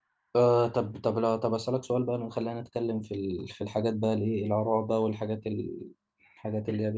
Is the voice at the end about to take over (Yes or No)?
No